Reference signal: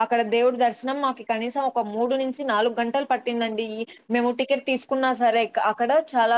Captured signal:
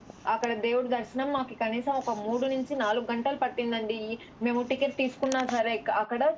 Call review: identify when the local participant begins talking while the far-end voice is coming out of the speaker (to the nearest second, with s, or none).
none